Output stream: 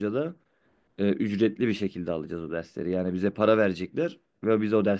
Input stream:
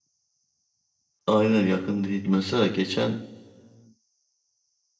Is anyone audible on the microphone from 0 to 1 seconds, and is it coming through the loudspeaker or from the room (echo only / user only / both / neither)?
neither